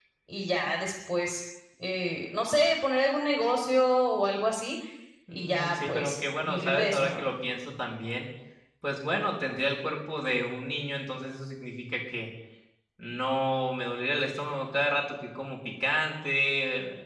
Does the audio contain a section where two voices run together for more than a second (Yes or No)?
Yes